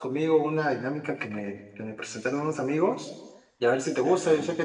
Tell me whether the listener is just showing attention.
Yes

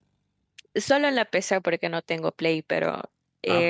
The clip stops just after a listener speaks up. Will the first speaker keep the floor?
No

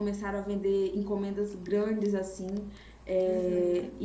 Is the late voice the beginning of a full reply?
No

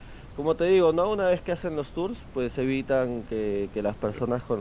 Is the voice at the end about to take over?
No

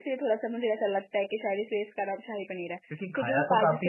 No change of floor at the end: No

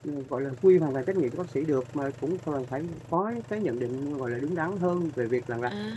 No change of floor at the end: No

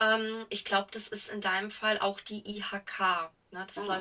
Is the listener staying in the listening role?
Yes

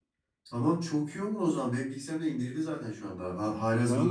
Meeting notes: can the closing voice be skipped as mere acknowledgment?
No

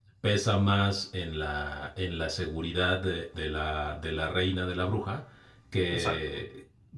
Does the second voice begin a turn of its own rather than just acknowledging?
No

